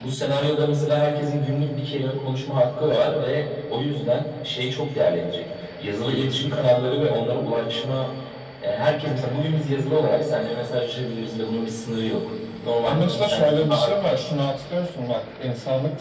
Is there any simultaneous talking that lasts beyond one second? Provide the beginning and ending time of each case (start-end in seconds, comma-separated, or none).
12.8-14.1